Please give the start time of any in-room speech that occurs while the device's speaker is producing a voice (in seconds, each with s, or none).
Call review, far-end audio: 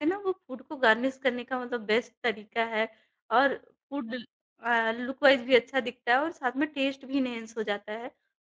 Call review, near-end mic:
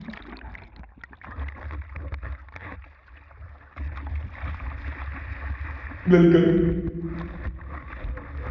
6.1 s